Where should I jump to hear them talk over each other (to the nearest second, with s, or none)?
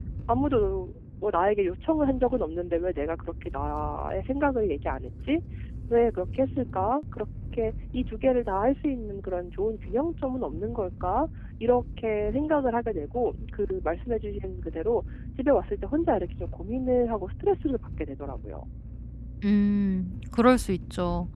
none